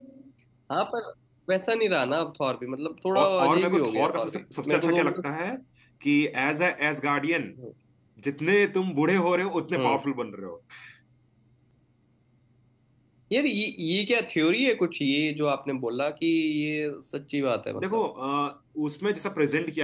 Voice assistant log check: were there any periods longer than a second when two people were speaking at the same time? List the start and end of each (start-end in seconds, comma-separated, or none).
3.1-5.3